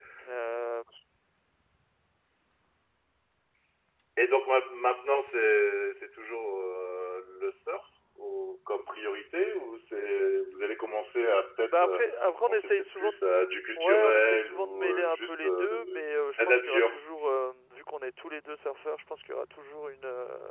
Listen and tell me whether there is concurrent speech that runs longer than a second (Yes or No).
Yes